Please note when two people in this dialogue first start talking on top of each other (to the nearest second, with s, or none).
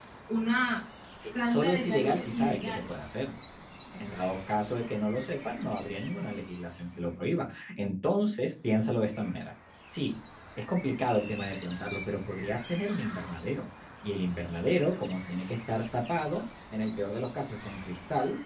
1 s